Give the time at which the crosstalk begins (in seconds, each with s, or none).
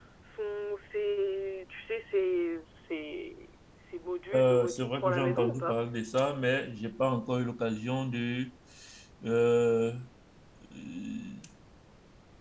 4.3 s